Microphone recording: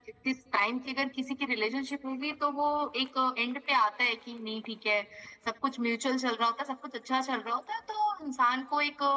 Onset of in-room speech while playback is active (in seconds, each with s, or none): none